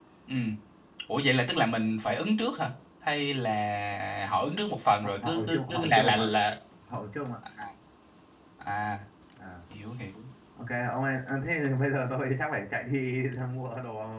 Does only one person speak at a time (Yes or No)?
No